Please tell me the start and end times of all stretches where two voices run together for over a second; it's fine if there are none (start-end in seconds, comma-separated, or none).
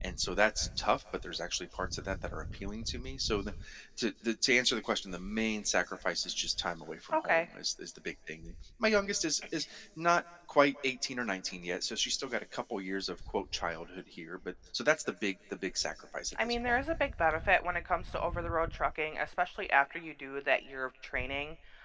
none